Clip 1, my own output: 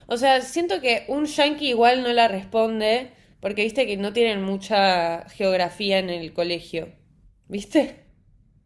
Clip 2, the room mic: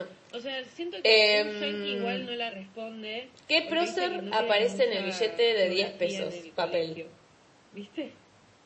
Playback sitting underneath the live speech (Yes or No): Yes